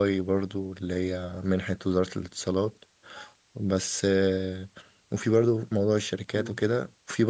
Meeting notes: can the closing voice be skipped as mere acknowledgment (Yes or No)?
Yes